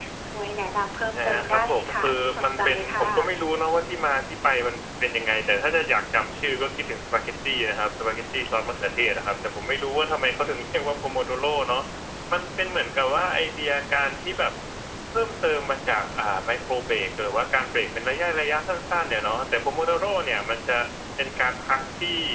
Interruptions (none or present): present